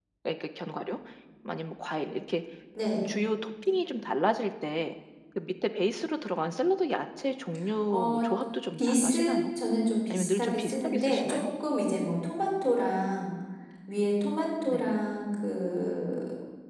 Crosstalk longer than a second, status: present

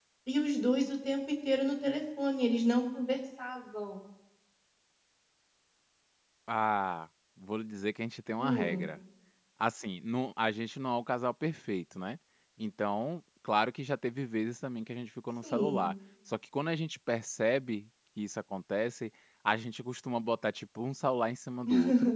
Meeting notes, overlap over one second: none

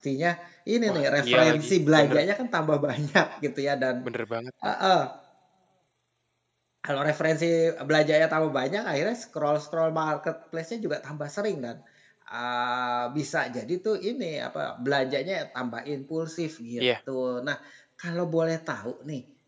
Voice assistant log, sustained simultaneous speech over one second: present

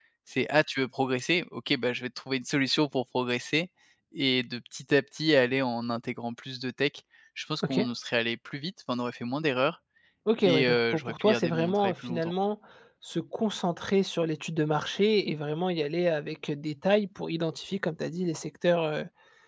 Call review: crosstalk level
present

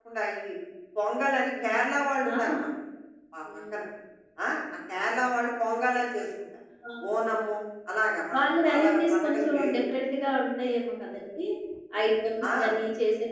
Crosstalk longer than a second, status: present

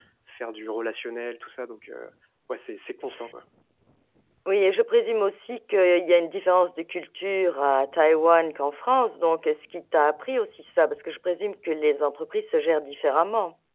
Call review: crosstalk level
none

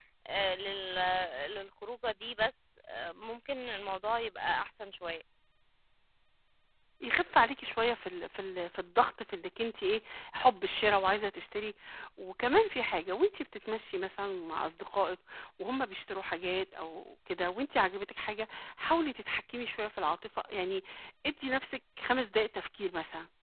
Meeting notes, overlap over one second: none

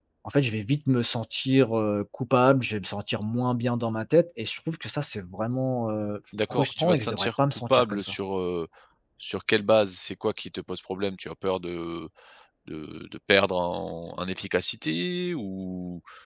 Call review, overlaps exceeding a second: present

